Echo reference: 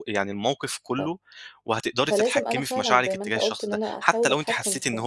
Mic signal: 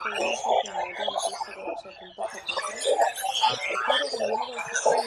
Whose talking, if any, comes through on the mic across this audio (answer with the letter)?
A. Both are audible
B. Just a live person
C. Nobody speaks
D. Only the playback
A